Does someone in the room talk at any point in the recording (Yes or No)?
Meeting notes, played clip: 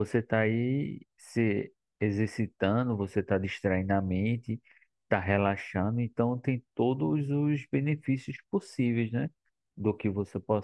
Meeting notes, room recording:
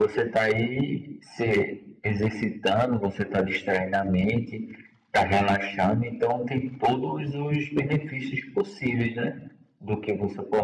No